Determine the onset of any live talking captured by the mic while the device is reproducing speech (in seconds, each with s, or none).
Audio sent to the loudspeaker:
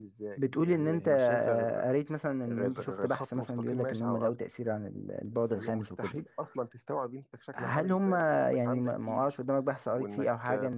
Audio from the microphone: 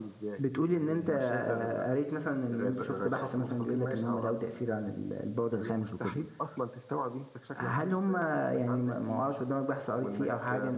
none